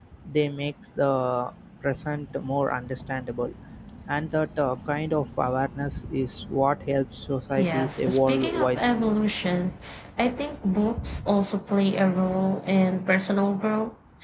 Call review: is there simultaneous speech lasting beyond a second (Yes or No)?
Yes